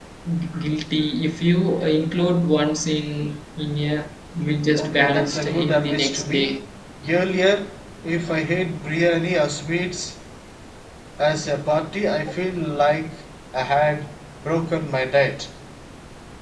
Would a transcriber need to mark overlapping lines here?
Yes, from 4.8 s

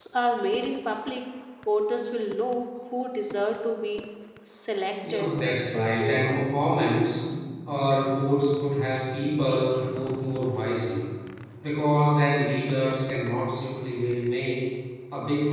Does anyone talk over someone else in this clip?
Yes, from 5.1 s

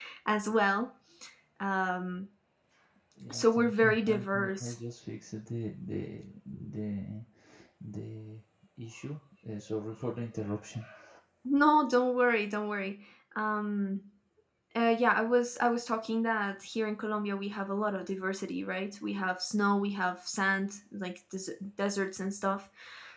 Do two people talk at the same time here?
Yes, from 3.3 s

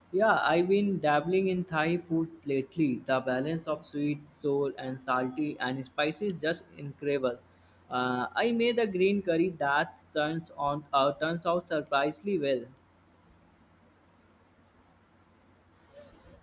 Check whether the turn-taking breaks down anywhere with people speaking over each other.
No

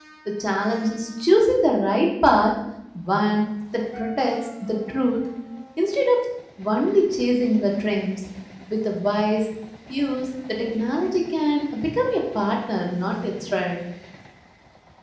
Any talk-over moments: No

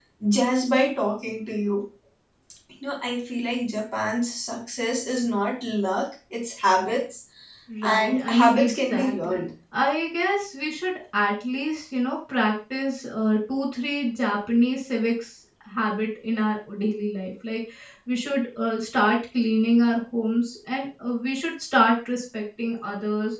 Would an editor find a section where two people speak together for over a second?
Yes, from 7.8 s

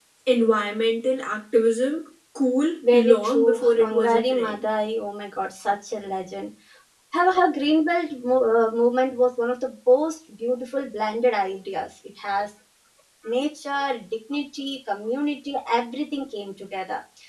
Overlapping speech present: Yes, from 2.8 s

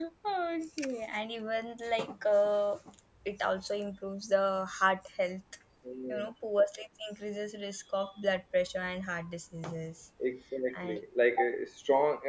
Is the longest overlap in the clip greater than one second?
No

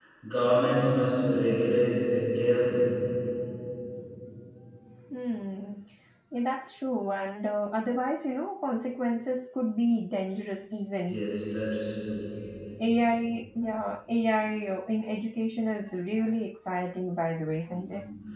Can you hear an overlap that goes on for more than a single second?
No

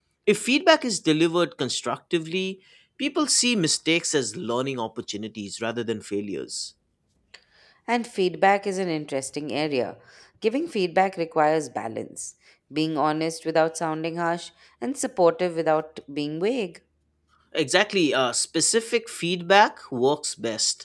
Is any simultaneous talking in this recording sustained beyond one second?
No

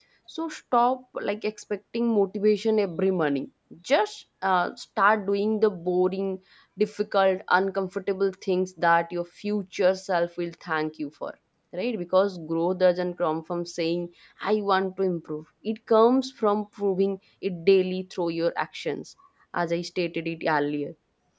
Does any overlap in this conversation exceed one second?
No

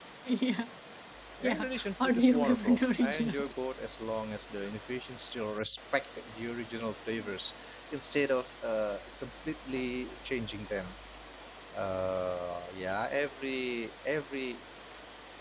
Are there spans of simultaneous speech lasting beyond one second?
Yes, from 1.4 s

